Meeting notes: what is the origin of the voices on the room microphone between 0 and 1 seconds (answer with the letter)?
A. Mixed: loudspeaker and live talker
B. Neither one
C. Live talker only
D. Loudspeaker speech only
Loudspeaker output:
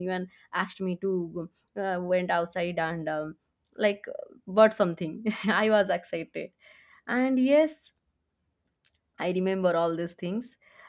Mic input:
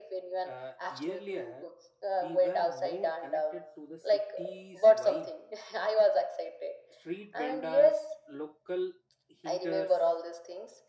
A